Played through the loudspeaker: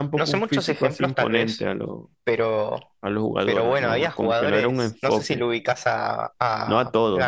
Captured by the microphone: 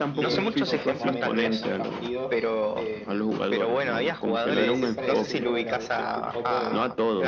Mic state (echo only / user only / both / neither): both